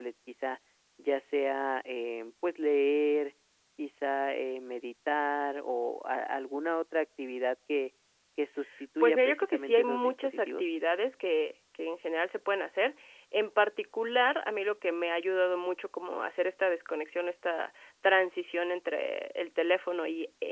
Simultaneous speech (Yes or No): Yes